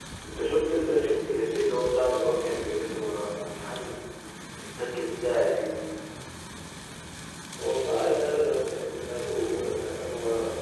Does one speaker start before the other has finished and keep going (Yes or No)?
No